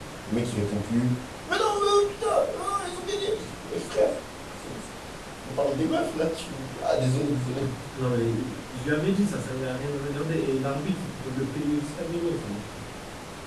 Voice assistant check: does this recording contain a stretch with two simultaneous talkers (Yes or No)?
No